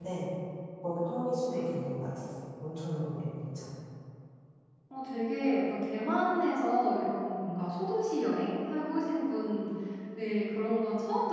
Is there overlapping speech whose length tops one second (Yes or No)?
No